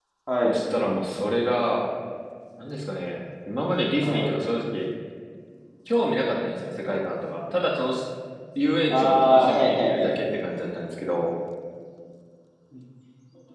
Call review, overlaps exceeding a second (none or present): present